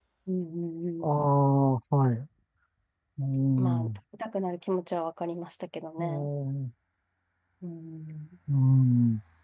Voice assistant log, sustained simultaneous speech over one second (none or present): none